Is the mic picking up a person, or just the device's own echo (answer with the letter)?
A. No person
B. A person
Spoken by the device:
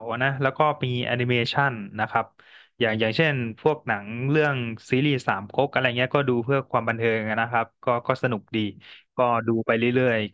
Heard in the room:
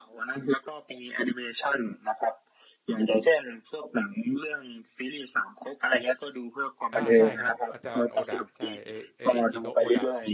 B